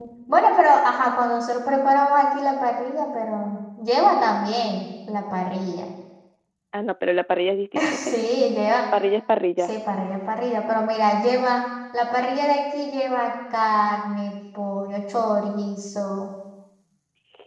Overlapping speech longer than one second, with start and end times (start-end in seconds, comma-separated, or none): none